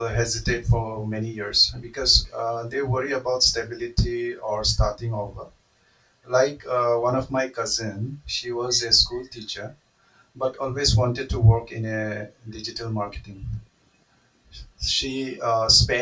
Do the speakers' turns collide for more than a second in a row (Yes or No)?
No